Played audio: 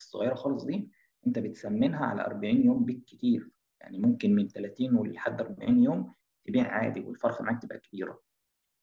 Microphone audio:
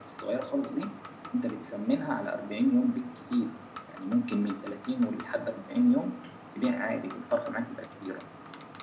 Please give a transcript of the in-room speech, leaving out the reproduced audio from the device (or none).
none